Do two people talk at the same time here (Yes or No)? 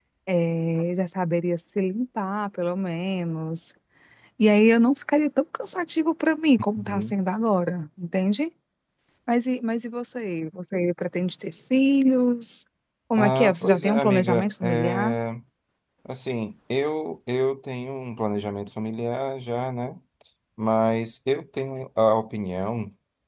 Yes